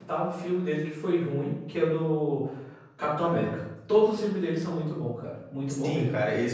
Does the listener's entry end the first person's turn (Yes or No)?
Yes